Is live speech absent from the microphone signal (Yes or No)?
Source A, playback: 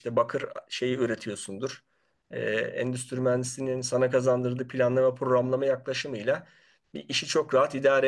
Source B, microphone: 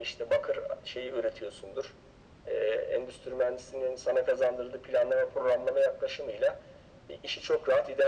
Yes